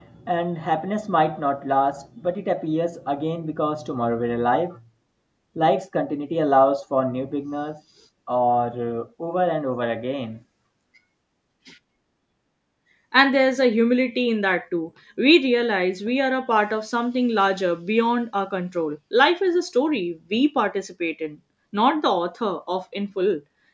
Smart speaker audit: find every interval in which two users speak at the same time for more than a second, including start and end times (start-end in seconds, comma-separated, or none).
none